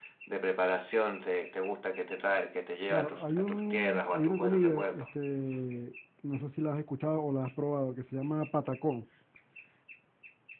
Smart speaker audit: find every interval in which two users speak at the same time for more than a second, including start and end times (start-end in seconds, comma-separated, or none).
2.9-5.0